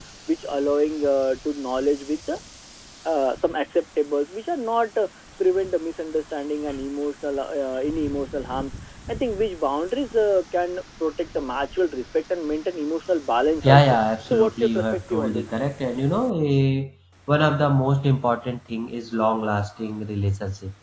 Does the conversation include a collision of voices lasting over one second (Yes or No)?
Yes